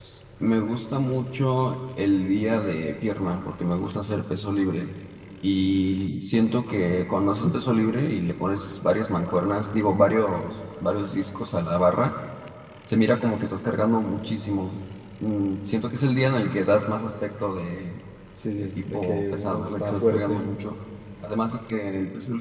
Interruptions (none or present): present